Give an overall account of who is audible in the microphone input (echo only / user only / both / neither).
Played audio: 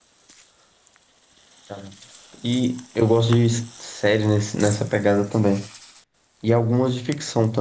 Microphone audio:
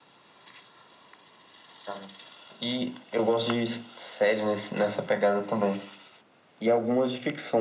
echo only